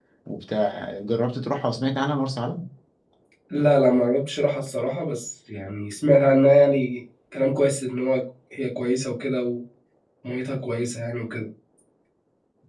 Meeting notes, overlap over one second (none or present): none